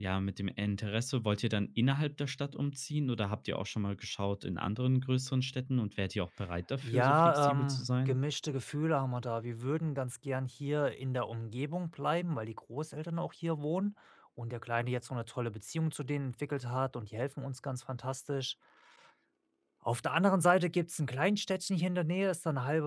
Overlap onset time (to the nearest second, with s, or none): 7 s